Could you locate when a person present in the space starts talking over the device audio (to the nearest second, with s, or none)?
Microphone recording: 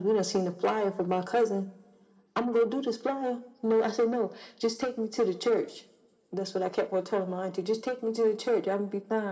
none